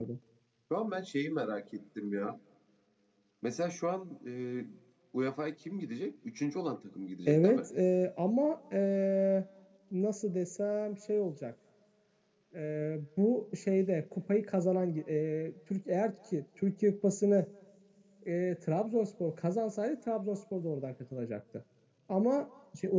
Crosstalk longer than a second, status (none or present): none